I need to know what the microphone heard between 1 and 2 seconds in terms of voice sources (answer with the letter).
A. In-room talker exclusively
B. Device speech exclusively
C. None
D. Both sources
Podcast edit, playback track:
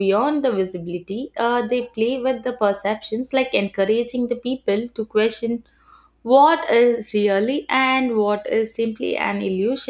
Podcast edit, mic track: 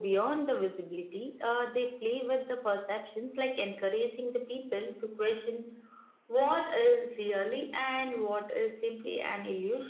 B